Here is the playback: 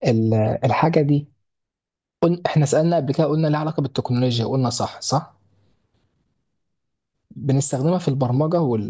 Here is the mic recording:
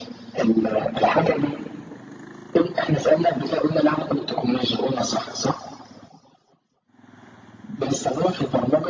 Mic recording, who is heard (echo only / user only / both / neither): echo only